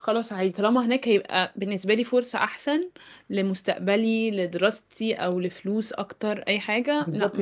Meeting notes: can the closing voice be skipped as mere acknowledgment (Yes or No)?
No